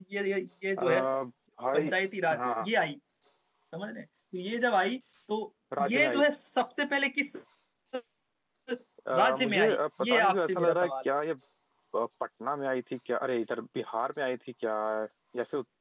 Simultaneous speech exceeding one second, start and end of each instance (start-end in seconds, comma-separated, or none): 9.2-11.1